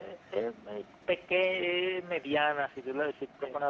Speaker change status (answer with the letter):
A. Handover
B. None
B